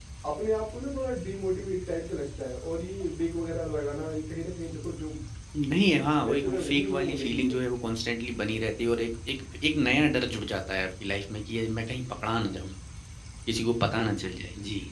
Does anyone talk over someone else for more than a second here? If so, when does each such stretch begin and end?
6.2-7.6

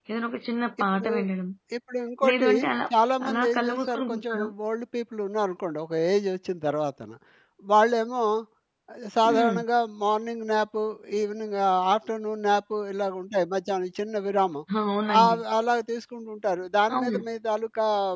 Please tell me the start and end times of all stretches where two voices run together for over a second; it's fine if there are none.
3.3-4.5

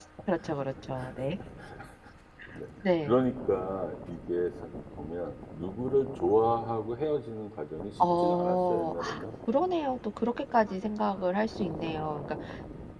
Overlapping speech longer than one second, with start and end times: 8.0-9.2

